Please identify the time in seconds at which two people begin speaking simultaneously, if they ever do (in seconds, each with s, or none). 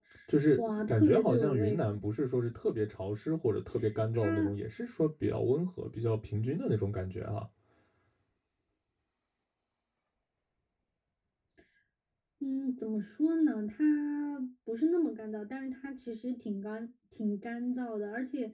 0.6 s